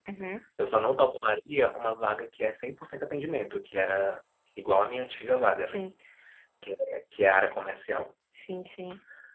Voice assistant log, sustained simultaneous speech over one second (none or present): none